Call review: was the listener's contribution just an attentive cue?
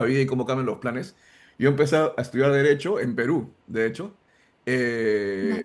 Yes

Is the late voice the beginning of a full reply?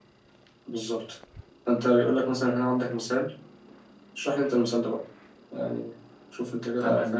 Yes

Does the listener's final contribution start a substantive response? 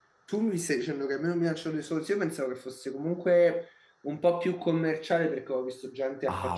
Yes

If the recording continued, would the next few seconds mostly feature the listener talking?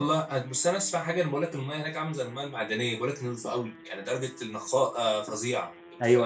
Yes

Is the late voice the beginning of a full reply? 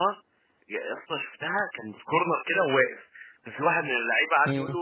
No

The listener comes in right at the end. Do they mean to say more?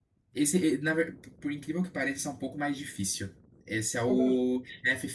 No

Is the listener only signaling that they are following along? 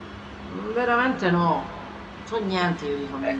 No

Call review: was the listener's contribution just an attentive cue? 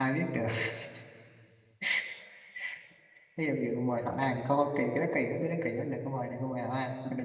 No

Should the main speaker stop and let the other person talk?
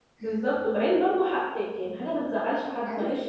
No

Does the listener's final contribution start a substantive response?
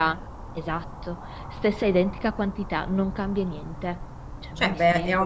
Yes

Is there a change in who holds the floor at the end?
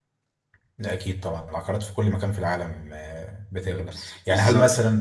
No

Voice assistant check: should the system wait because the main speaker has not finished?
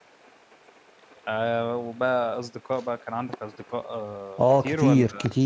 No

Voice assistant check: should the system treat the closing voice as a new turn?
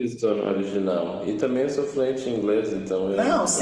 Yes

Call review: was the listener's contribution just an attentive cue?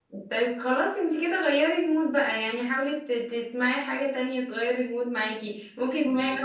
Yes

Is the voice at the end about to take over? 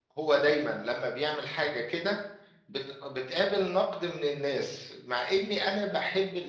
No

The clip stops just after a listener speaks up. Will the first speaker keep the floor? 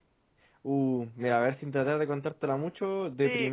No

